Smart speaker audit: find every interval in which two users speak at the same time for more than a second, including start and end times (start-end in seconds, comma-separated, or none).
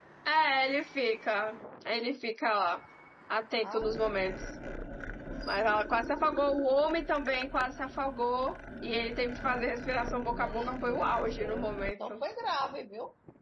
10.3-12.2